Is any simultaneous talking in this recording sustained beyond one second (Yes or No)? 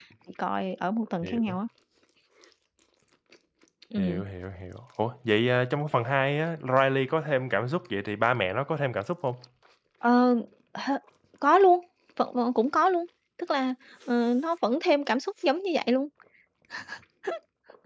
No